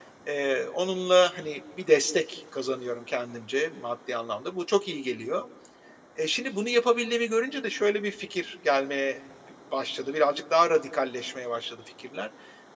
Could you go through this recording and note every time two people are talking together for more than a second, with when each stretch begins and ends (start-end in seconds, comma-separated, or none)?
none